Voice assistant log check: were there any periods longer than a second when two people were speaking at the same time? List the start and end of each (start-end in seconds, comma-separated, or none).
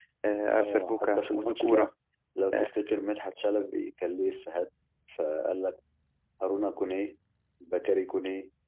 0.6-1.9